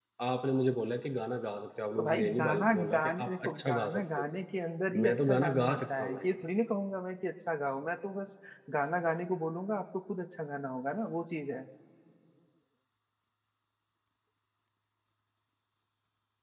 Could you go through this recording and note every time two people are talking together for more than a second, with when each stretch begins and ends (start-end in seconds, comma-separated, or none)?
2.0-4.2, 5.0-6.3